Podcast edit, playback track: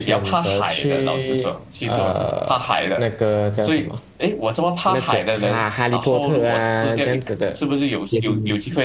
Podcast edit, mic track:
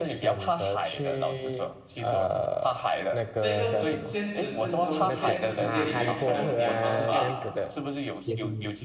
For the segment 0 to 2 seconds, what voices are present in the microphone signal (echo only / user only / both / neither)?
echo only